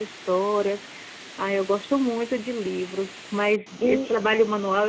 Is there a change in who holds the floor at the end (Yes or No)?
No